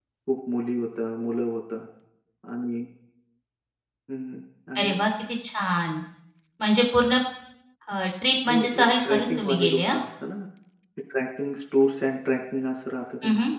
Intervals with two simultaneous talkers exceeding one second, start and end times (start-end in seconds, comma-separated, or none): 8.5-9.9